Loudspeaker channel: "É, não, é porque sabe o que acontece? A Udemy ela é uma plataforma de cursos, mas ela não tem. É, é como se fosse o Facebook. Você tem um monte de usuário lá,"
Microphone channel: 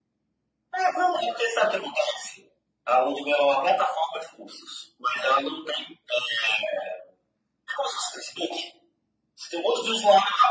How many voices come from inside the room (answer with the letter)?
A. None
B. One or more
A